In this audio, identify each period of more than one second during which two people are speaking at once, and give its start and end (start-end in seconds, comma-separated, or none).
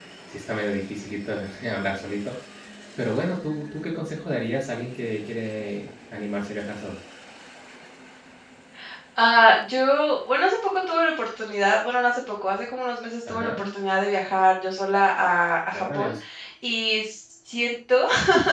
none